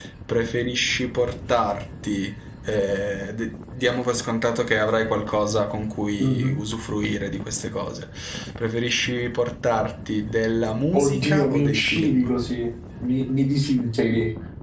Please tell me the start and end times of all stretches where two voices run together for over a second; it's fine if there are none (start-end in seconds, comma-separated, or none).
10.9-12.3